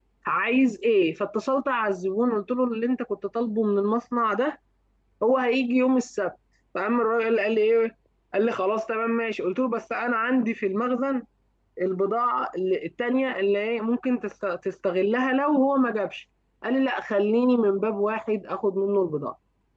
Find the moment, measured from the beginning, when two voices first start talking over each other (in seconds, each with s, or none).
none